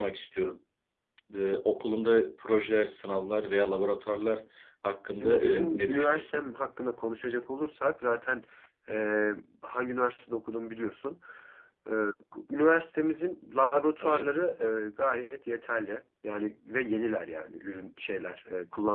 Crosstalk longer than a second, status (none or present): present